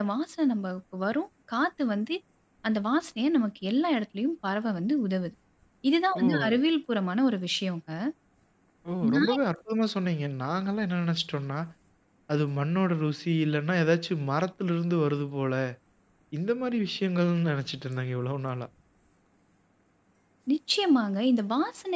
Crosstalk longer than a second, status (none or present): none